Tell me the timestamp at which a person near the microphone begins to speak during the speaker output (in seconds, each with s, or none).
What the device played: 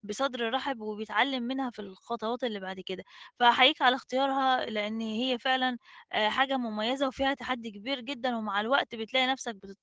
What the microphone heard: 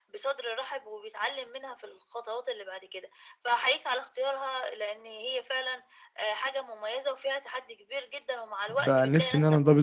8.7 s